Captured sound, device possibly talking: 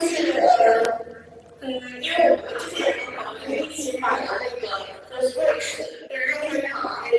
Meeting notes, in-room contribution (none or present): none